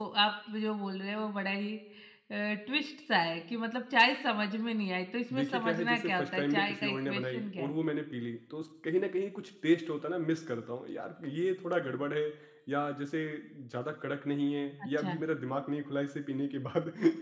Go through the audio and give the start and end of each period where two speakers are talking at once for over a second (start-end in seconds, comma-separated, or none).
5.3-7.7